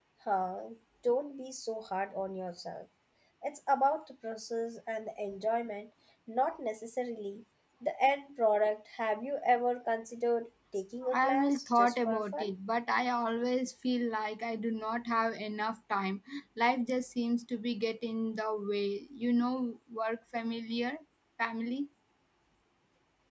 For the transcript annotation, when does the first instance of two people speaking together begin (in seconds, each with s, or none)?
11.0 s